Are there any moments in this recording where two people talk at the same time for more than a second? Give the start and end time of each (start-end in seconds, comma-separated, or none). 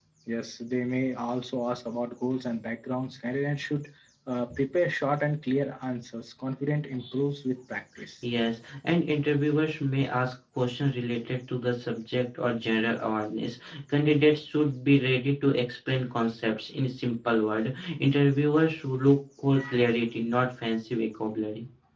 none